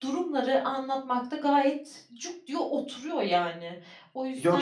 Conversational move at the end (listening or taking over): taking over